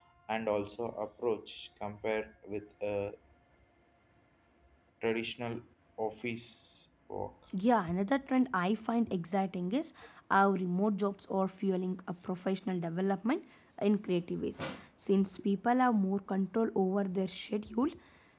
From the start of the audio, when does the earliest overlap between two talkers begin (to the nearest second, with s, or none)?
none